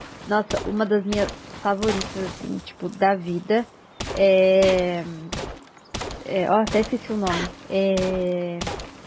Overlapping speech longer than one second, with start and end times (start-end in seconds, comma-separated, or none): none